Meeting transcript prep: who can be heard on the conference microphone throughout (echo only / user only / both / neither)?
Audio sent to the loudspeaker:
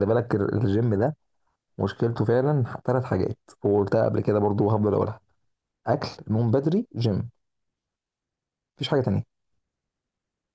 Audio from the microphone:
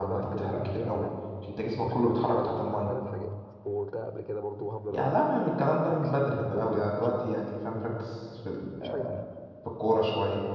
both